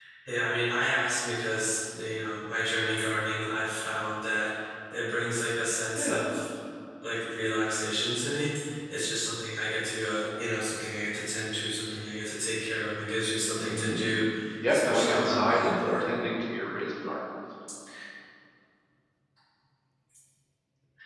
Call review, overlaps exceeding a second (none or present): present